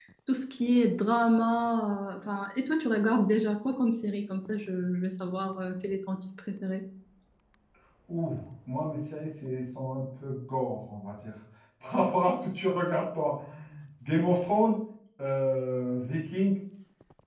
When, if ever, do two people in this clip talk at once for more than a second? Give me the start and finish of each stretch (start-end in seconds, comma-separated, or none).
none